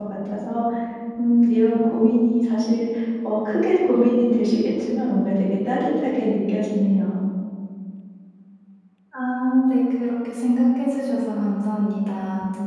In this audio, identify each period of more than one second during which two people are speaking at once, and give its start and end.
none

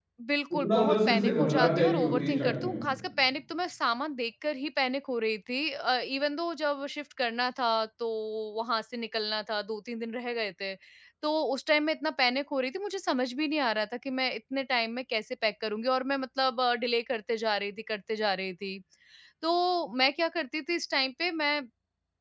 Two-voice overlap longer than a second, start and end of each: 0.5-2.8

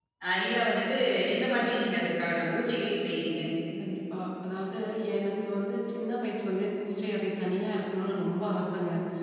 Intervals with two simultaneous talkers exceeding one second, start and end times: none

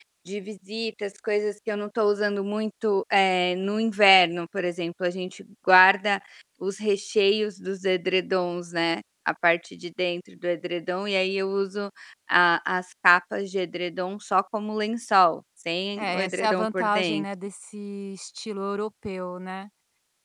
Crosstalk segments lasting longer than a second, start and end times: 16.0-17.2

